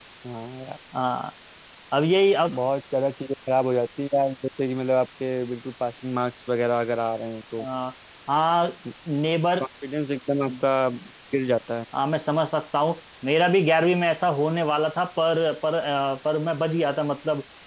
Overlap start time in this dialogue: none

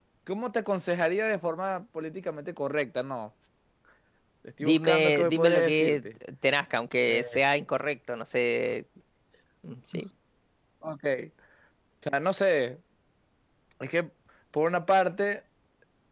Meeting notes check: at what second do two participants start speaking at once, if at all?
4.6 s

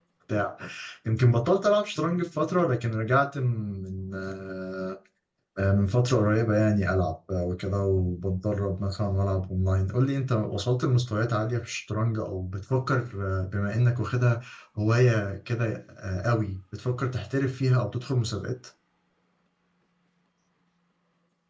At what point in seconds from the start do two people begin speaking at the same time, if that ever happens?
none

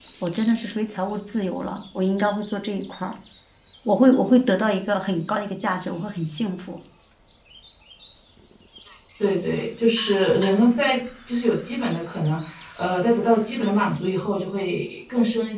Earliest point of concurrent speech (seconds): none

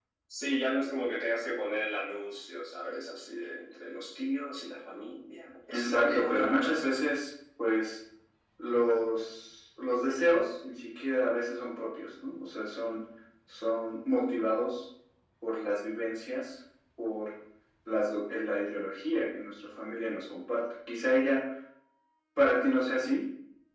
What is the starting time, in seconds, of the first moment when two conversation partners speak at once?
5.7 s

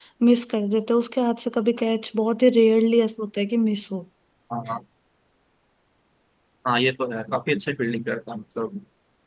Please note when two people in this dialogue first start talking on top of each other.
none

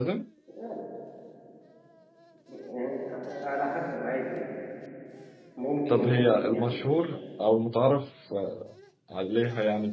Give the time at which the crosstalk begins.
5.9 s

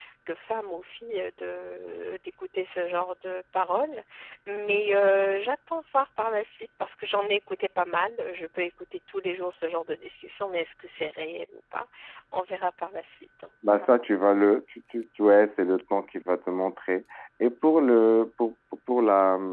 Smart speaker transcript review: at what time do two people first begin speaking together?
none

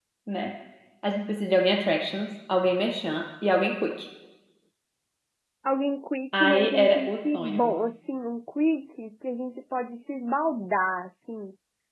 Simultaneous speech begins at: 6.3 s

